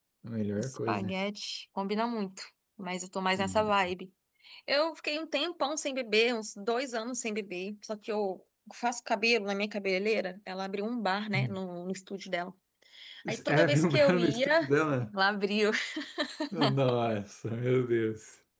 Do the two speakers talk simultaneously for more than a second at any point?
Yes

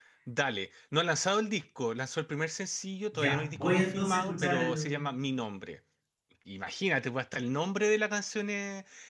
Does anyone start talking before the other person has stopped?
Yes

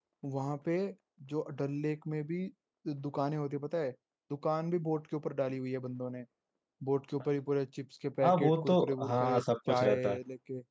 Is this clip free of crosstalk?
No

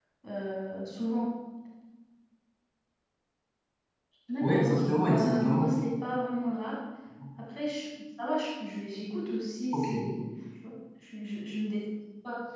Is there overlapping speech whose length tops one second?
Yes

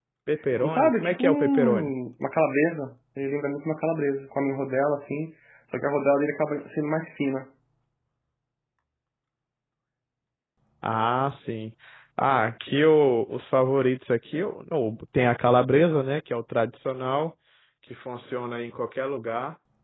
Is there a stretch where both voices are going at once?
Yes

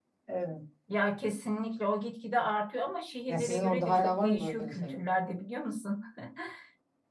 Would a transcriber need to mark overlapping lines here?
Yes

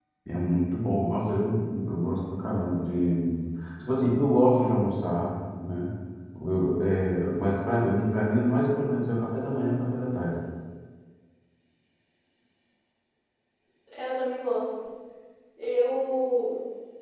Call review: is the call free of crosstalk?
Yes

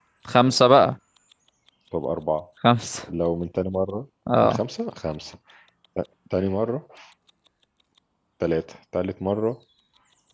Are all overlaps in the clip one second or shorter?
Yes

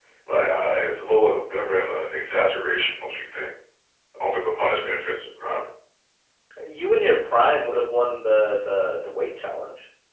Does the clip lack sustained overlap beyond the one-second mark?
Yes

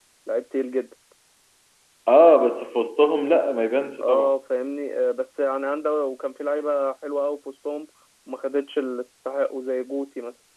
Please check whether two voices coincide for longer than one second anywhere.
No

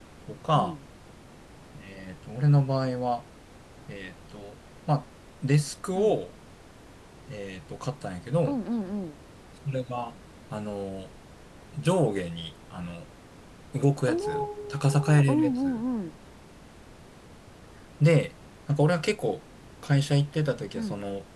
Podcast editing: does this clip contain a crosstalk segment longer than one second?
Yes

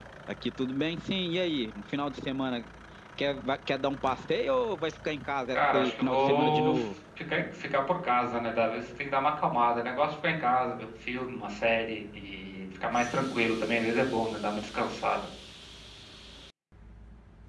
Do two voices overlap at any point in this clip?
Yes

